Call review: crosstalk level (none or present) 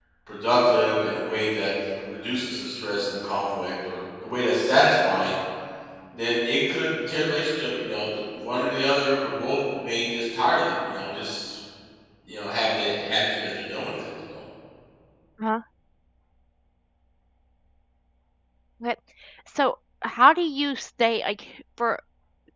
none